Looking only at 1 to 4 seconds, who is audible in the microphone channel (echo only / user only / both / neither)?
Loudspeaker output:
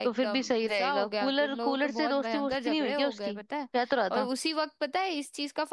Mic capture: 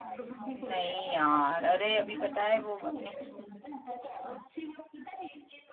both